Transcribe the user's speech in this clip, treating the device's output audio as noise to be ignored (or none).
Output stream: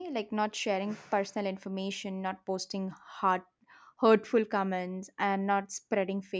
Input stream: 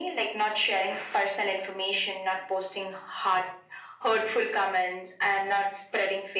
none